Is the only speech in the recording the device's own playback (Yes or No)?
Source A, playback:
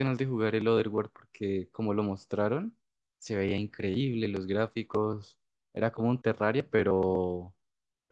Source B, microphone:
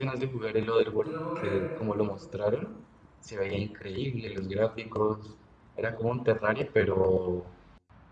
No